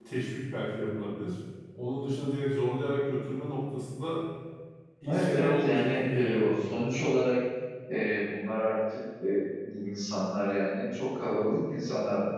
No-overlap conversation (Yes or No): No